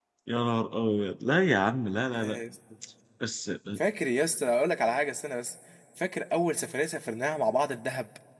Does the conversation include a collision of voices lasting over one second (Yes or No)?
No